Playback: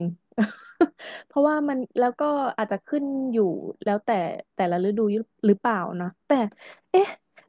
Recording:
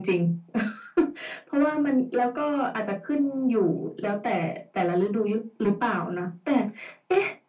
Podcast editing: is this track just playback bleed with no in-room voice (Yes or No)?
Yes